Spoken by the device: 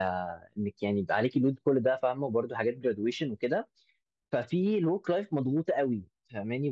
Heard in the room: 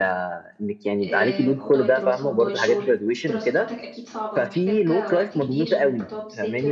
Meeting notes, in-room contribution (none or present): present